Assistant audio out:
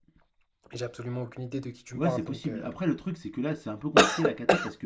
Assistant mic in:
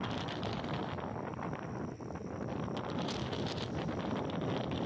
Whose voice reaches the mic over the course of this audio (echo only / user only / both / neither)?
neither